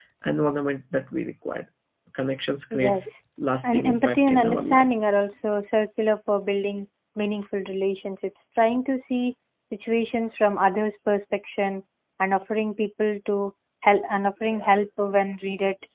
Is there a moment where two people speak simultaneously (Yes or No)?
Yes